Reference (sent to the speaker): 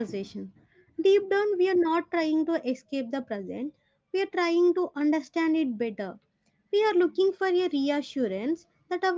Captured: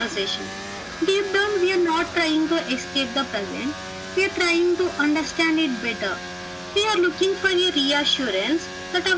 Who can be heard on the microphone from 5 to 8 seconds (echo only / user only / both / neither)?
echo only